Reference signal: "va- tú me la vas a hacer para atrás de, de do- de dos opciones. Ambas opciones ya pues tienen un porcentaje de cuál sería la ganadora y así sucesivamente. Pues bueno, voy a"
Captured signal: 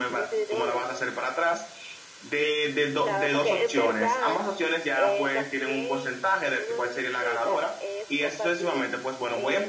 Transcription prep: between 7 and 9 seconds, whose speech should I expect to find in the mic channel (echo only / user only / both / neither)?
both